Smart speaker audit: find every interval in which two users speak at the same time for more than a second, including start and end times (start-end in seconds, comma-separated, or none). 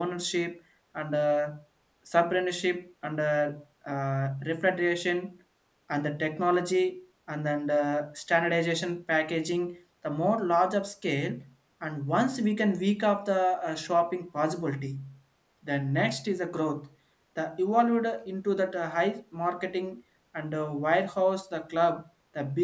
none